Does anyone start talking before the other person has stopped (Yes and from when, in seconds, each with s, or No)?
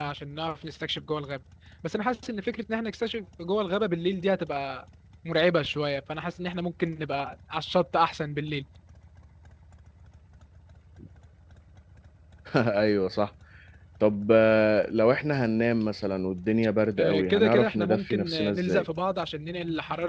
Yes, from 17.0 s